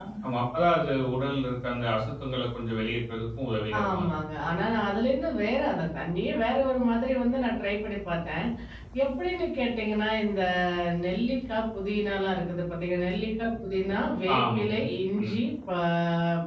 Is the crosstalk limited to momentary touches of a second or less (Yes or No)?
Yes